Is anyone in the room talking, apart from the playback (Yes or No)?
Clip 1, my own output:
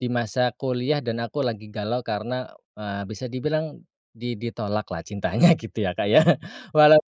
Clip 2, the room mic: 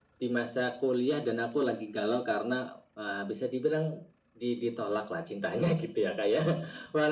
No